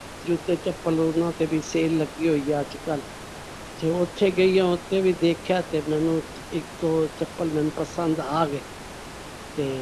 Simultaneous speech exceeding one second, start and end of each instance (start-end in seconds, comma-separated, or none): none